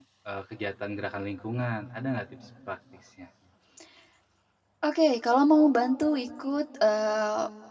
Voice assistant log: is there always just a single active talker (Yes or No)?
Yes